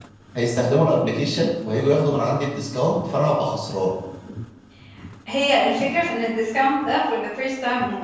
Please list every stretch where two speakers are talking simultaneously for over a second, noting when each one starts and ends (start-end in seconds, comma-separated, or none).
none